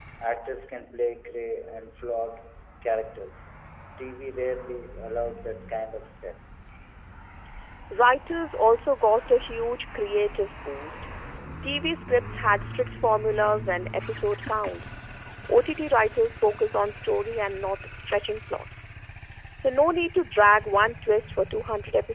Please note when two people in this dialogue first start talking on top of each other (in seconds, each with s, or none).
none